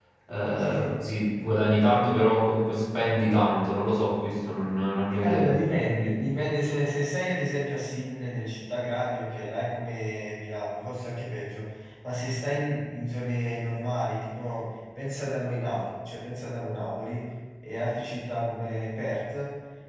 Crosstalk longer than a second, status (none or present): none